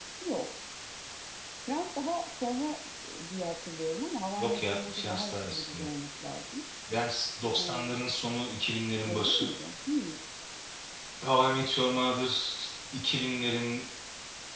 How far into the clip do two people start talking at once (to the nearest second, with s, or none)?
4 s